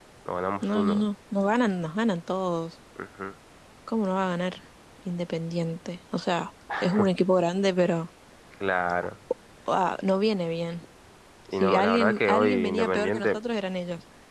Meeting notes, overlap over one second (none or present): present